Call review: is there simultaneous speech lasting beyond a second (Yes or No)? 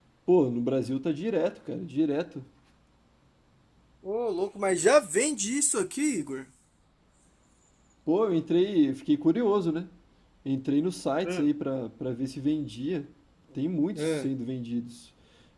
No